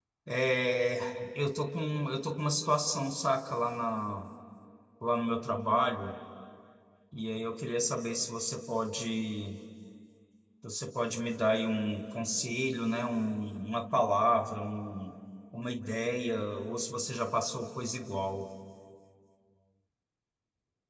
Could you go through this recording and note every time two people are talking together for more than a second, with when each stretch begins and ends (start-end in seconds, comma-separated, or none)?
none